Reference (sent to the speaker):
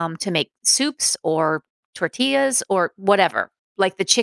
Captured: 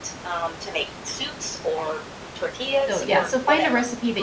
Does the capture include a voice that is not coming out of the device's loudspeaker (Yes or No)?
Yes